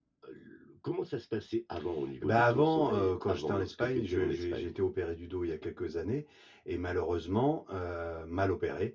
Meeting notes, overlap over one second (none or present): present